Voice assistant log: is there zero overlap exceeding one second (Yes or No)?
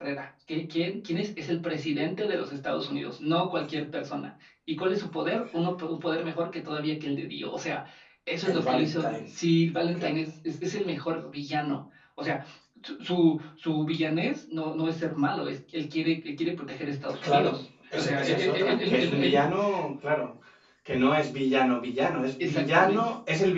No